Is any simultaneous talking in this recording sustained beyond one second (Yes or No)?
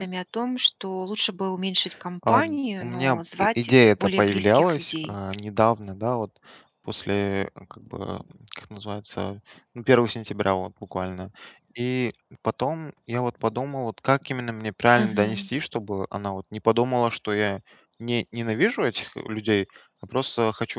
Yes